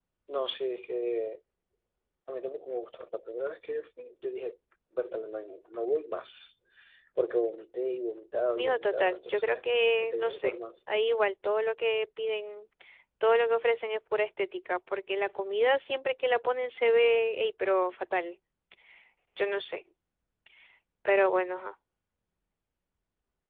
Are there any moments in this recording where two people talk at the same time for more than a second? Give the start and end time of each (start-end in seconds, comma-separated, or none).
8.6-10.6